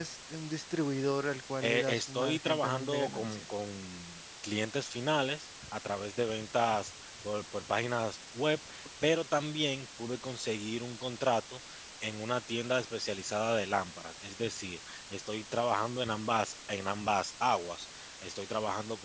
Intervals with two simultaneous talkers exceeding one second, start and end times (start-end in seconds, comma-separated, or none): 1.6-3.4